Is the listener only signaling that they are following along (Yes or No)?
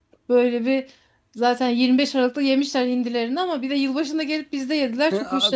No